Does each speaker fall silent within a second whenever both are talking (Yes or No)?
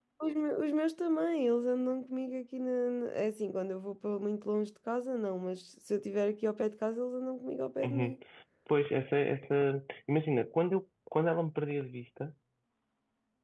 Yes